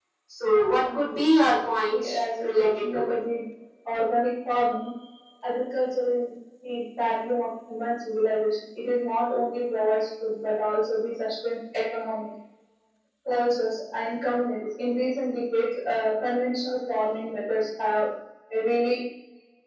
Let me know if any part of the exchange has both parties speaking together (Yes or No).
Yes